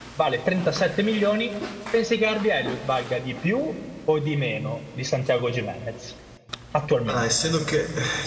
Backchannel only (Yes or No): No